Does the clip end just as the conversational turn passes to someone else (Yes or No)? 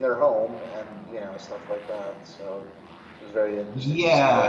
Yes